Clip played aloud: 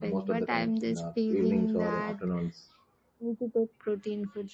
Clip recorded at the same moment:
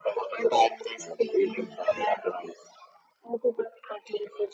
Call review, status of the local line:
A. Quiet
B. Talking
A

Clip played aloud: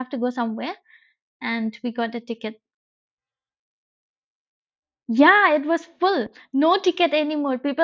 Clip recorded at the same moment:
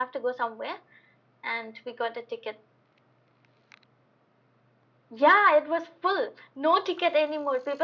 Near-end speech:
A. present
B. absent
B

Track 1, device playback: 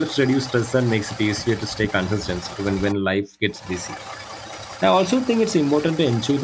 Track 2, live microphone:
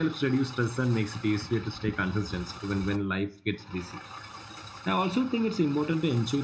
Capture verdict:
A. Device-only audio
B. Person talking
A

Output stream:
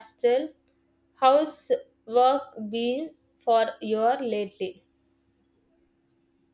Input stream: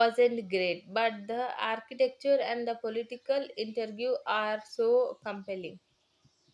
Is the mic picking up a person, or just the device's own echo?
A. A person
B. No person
A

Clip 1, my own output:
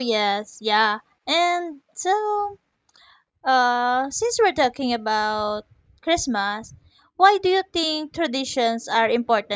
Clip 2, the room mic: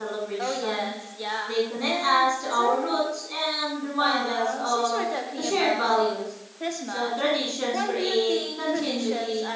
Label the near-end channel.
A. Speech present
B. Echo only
A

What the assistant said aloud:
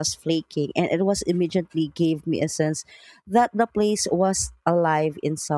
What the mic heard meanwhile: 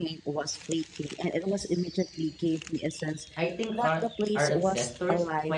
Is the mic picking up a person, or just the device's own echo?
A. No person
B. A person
B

